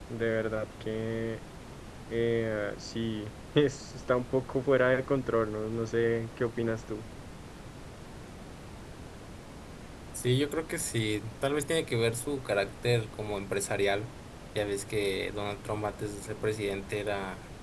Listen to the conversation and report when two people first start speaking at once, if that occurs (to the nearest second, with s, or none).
none